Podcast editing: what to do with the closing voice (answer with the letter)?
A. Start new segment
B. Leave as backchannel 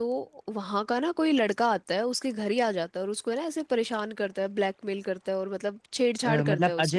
A